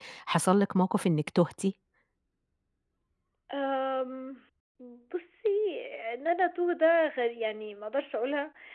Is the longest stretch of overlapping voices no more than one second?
Yes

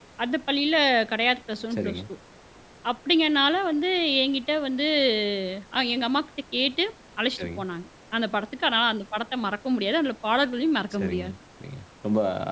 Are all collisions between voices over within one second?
Yes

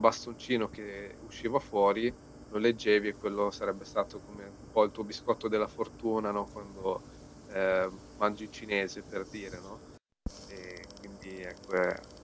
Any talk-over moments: No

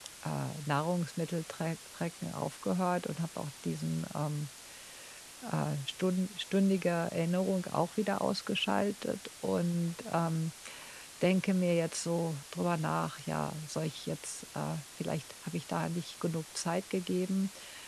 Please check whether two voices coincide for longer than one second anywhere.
No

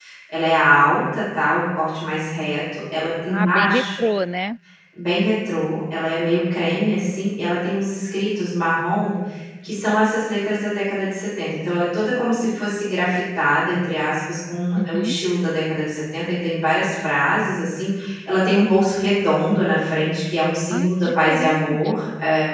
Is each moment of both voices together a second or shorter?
No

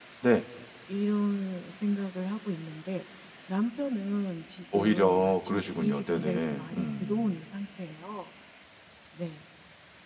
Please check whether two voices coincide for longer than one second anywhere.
Yes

